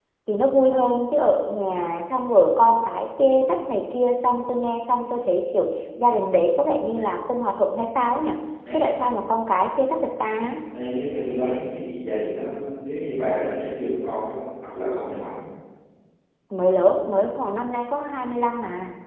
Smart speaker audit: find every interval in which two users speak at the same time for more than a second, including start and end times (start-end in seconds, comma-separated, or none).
none